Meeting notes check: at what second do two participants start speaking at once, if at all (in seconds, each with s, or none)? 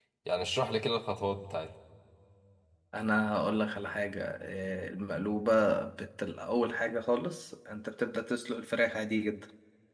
none